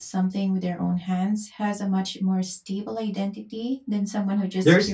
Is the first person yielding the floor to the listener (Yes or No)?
Yes